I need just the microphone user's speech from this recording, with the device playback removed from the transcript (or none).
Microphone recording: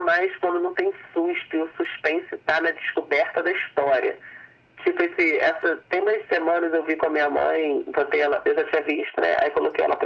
none